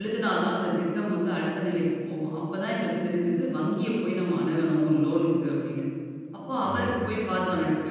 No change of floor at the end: Yes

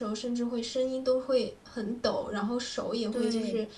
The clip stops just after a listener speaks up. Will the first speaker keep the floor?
Yes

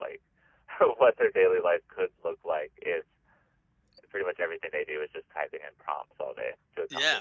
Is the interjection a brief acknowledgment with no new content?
No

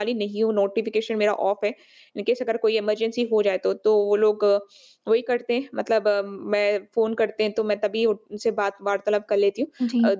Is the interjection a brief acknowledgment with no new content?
Yes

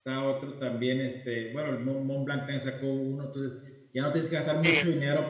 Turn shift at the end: No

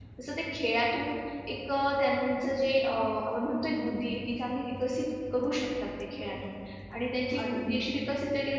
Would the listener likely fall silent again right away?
Yes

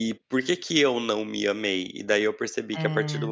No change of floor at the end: Yes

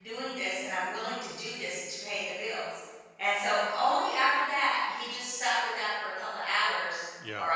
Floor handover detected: No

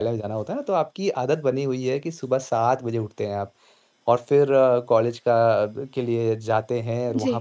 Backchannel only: Yes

